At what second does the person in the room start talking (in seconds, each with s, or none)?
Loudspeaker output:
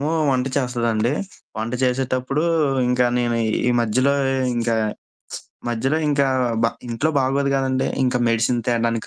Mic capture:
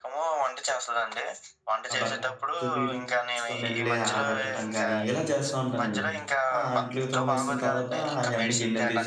1.9 s